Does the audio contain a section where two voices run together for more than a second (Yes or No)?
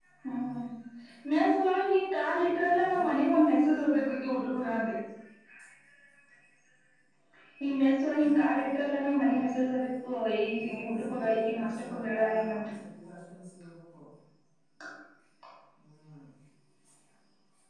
Yes